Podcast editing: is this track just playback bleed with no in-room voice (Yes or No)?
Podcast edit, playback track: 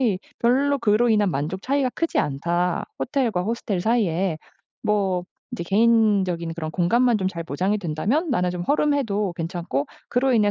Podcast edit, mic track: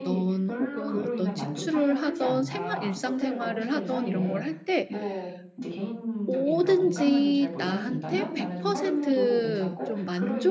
No